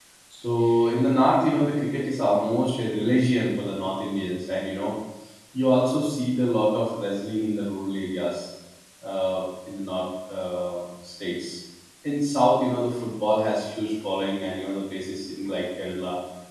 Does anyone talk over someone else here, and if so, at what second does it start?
none

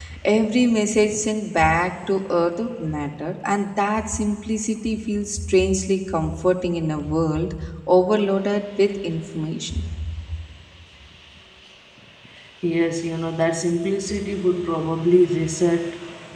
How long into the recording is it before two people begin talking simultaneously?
none

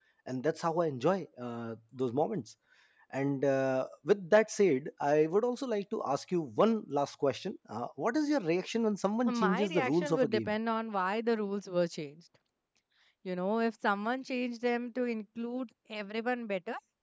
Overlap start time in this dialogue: 9.3 s

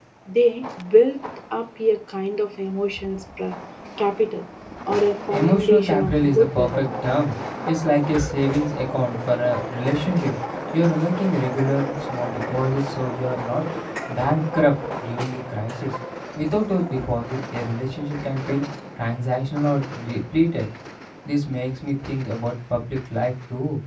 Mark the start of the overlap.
5.3 s

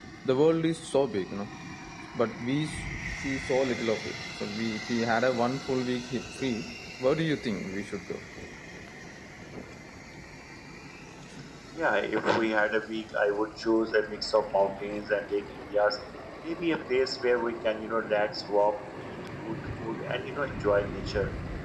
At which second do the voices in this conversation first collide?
none

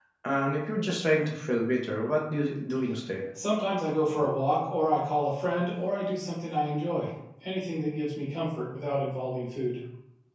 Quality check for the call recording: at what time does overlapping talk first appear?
none

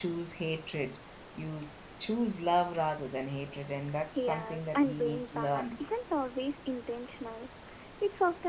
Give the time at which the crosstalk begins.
4.2 s

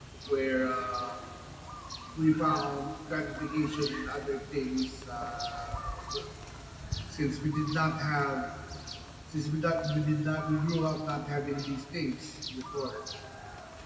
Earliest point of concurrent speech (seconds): none

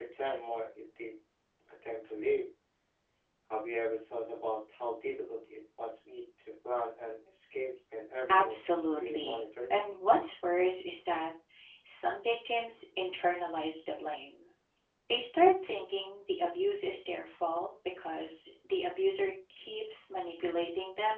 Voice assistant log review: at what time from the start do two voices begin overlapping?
8.3 s

